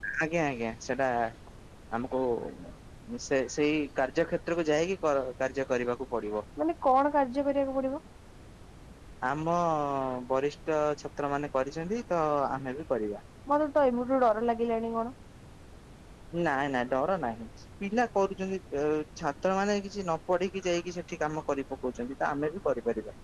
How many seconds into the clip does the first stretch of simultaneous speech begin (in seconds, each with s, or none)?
none